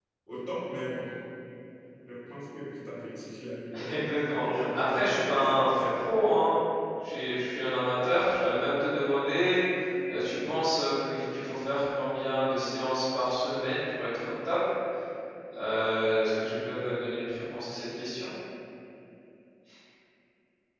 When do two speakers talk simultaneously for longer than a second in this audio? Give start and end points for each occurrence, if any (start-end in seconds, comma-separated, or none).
4.4-5.6